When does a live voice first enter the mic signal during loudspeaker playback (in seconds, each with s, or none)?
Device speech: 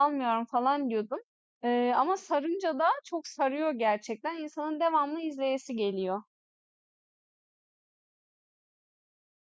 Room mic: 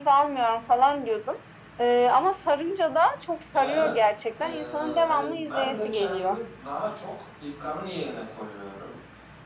3.5 s